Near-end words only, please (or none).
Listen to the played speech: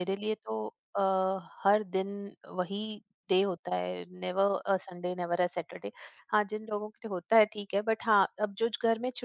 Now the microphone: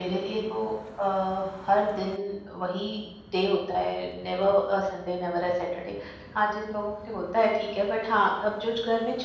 none